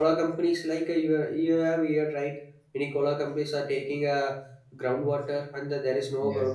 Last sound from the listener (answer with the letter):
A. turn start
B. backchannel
B